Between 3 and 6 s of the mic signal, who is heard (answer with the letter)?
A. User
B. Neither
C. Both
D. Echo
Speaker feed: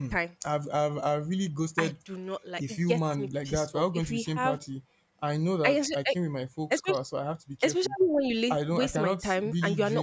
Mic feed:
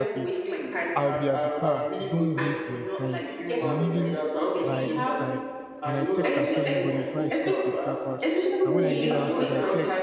C